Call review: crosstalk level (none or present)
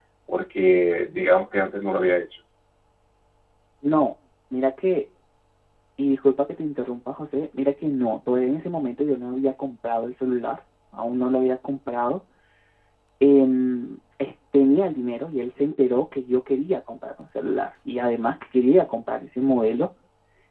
none